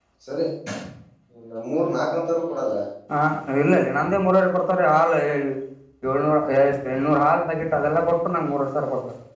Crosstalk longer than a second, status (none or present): none